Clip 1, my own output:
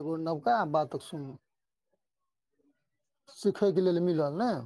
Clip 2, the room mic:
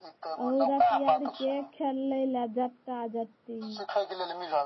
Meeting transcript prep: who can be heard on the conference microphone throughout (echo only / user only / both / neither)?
both